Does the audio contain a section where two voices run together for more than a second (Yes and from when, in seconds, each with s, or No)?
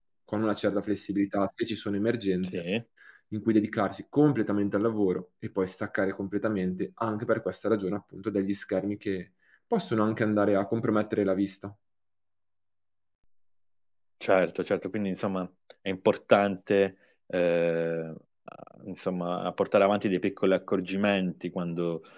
No